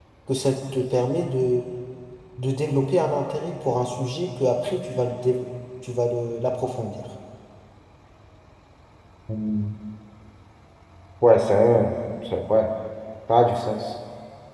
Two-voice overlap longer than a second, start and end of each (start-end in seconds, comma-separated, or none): none